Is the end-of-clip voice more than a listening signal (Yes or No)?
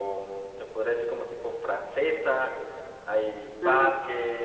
No